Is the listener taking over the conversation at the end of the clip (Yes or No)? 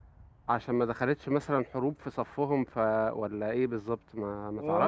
Yes